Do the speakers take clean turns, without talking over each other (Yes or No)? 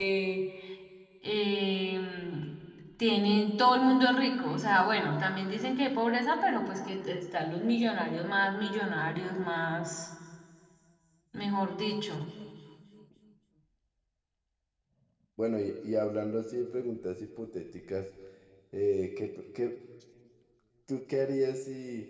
Yes